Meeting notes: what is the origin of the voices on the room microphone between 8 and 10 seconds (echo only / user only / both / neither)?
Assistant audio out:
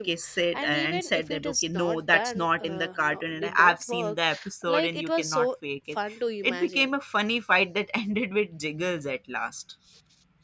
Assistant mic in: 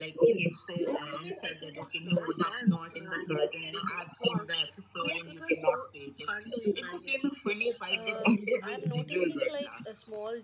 both